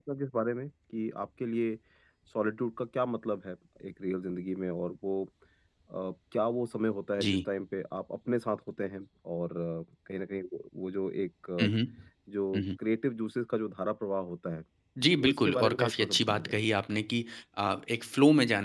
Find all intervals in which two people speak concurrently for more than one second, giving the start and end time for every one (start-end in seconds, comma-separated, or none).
15.2-16.6